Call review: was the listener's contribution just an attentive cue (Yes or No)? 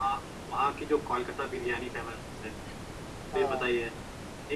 Yes